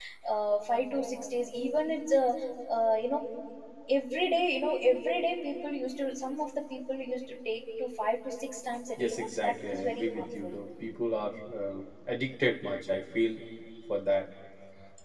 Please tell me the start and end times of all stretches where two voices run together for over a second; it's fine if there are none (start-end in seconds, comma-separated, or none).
9.0-10.6